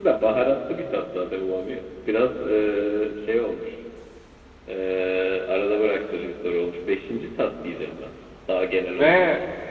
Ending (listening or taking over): taking over